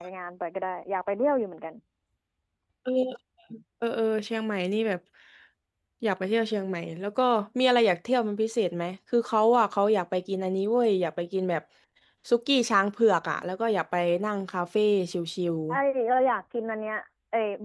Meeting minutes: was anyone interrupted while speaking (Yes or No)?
No